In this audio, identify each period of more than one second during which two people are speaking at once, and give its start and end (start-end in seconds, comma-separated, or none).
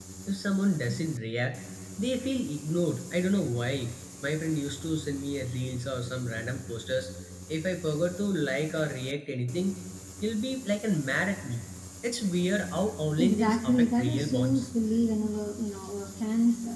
13.2-14.7